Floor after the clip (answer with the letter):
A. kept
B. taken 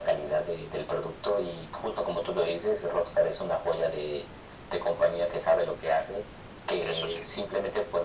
A